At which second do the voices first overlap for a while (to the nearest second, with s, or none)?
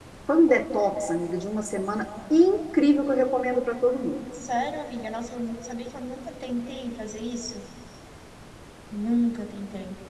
none